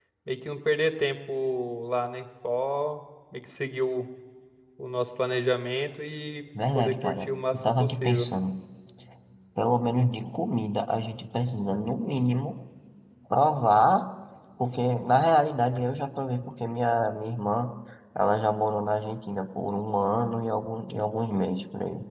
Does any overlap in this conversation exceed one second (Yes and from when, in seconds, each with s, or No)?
Yes, from 6.5 s